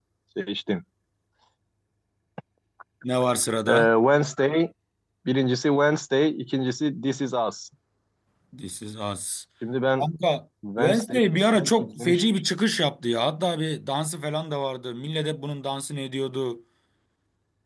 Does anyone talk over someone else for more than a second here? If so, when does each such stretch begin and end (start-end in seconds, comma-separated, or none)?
10.8-12.2